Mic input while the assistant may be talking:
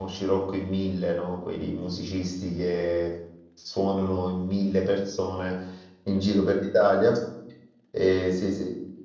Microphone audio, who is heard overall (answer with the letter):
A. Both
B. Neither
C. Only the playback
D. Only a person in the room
D